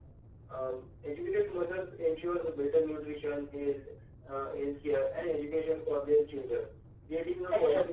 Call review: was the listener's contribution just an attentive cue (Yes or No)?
Yes